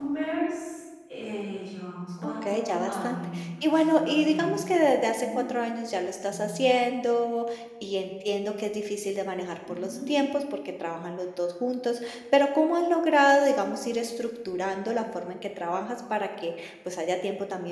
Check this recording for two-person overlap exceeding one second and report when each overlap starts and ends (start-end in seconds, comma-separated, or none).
2.2-4.6